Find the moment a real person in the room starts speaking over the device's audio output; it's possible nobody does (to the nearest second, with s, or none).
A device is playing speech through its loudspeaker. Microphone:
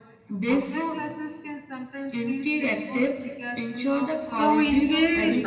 4 s